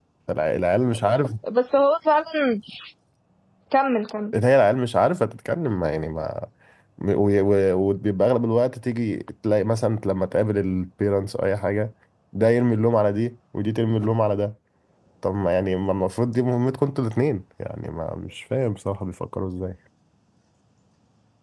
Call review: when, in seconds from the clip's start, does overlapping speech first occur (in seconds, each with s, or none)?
none